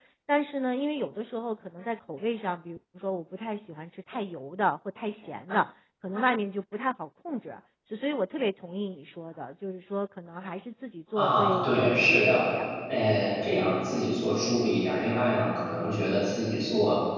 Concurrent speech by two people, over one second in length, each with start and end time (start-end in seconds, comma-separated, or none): 11.2-12.4